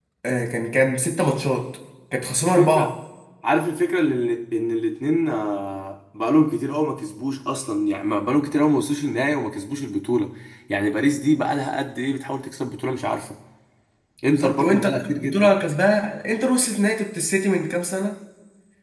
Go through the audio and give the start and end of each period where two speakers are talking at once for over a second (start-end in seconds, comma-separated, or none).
14.3-15.5